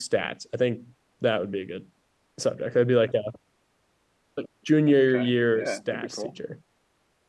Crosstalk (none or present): present